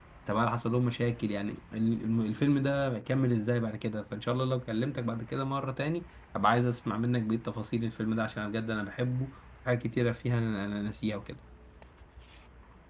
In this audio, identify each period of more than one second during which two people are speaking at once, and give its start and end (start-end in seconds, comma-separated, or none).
none